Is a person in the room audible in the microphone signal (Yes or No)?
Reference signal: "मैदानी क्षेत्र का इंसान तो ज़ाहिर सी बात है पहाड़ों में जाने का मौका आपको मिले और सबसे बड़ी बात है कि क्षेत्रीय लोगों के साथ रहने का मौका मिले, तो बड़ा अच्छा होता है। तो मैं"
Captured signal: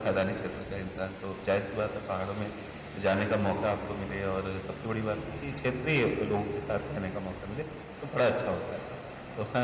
No